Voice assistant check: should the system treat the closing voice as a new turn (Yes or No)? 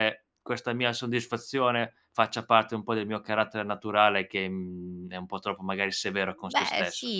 Yes